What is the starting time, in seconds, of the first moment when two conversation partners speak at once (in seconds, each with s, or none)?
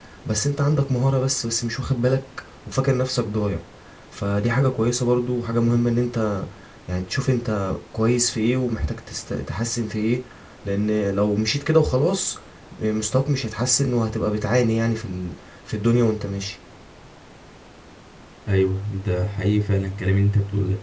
none